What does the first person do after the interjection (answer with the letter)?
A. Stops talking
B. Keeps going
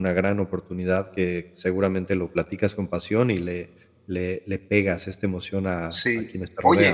A